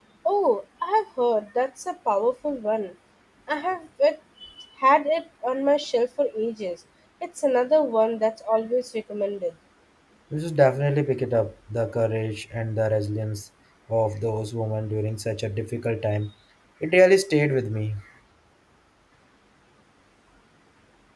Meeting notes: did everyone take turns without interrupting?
Yes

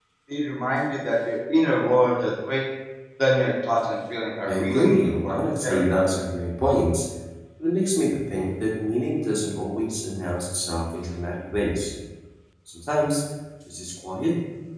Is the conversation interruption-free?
No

